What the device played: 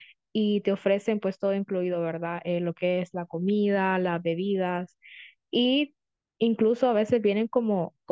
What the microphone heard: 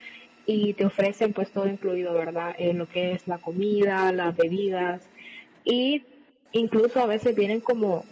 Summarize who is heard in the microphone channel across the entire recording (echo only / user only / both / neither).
echo only